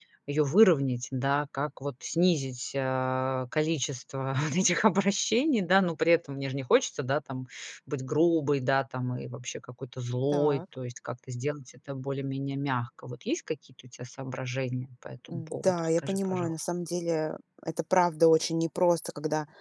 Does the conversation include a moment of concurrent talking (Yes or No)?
Yes